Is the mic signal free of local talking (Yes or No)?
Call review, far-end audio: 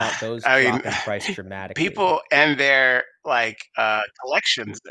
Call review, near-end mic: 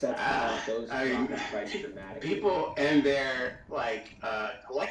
Yes